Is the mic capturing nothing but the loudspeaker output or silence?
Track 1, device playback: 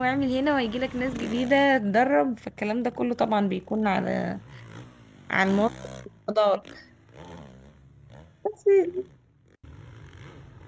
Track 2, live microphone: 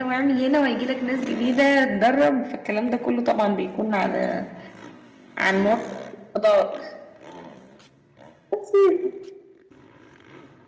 Yes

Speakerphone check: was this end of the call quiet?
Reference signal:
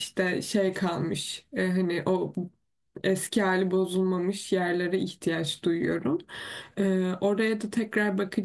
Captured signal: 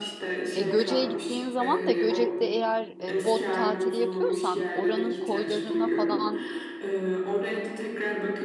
No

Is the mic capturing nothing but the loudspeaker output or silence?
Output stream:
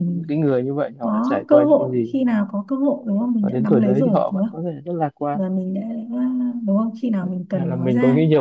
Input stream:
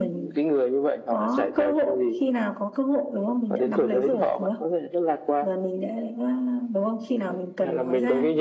Yes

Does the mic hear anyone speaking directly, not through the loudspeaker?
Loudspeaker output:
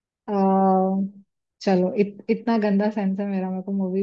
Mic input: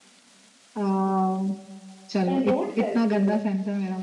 Yes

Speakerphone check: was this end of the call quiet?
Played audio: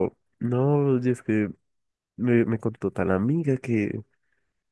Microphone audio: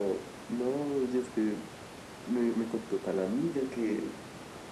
Yes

